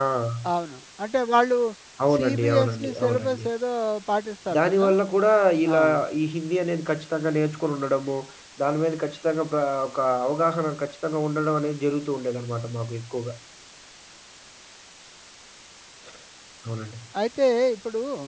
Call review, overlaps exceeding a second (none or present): present